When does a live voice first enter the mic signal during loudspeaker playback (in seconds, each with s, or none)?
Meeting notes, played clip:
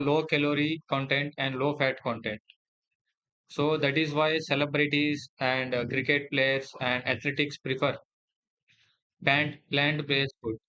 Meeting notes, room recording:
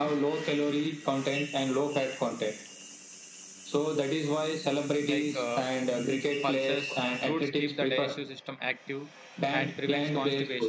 5.0 s